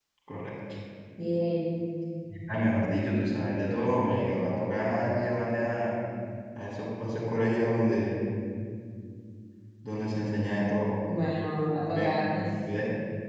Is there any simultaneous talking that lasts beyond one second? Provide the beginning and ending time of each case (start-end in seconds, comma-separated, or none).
none